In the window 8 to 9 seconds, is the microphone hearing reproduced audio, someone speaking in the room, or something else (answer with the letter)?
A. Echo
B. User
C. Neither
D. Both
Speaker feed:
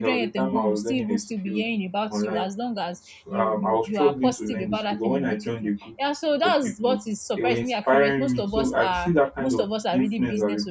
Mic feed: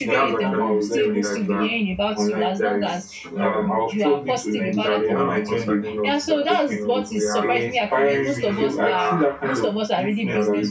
D